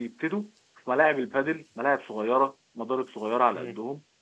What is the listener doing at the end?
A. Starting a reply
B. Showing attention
B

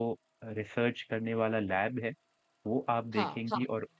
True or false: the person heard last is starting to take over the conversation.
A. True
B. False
B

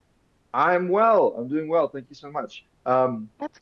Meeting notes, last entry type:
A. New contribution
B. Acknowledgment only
B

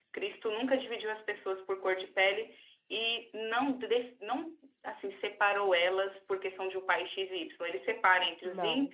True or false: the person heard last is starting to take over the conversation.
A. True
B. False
B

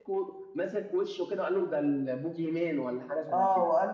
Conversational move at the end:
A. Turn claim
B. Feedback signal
A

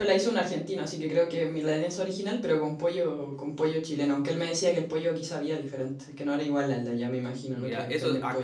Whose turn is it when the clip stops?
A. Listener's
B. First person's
A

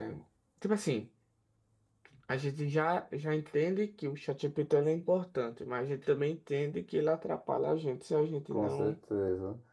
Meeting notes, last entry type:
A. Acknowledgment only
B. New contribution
B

